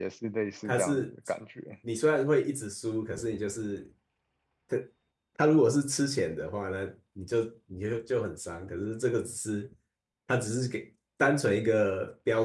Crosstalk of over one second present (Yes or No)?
No